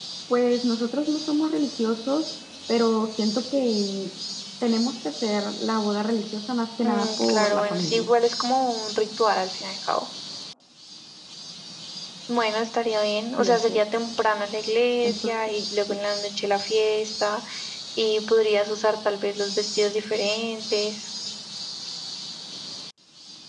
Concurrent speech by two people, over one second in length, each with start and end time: 6.9-8.1

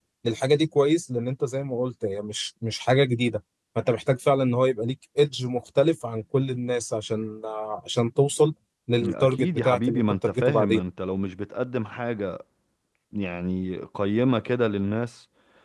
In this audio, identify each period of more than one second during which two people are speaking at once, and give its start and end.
9.0-10.8

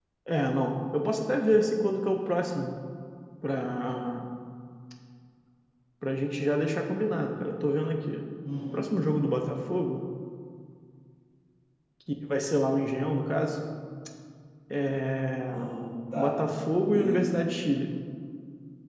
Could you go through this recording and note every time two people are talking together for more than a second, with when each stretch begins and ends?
none

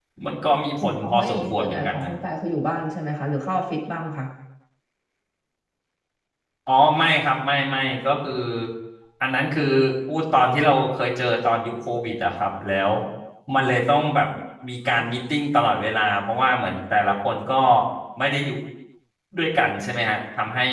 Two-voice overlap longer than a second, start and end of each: 0.8-2.1

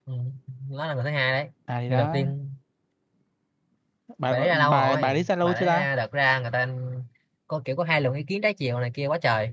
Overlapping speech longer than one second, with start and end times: 4.3-5.9

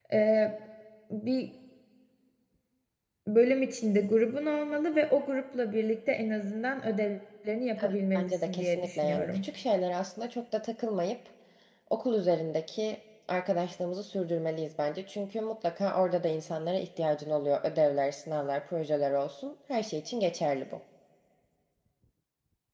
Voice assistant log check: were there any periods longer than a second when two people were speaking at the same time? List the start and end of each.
7.8-9.4

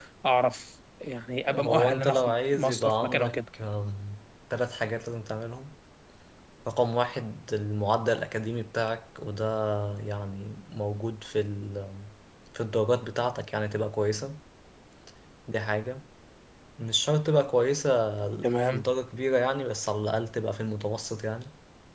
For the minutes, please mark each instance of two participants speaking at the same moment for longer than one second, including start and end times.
1.5-3.4

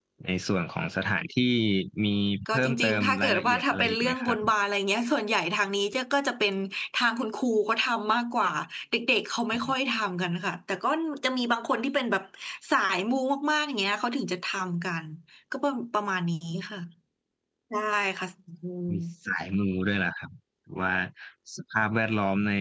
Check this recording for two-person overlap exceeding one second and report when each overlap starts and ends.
2.5-4.4

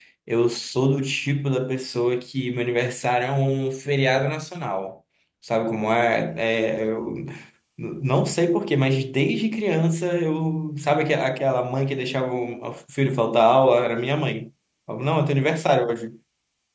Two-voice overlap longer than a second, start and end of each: none

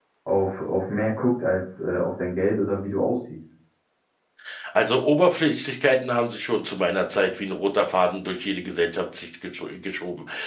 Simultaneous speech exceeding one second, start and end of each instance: none

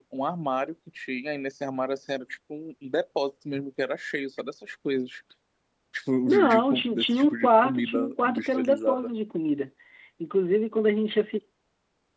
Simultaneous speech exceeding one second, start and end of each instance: 6.3-9.1

